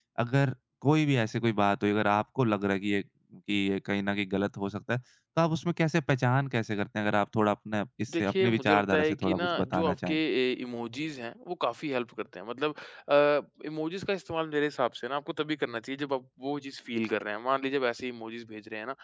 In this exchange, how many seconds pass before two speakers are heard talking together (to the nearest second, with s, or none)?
8 s